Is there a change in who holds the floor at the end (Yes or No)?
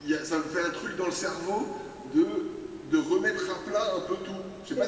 Yes